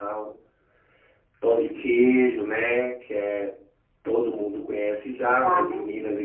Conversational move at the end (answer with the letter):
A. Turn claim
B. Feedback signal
B